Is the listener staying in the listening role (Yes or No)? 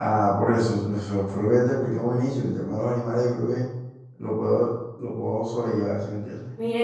No